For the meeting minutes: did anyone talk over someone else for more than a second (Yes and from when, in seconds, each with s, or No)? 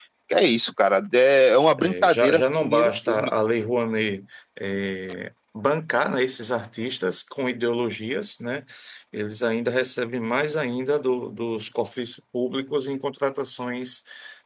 Yes, from 1.8 s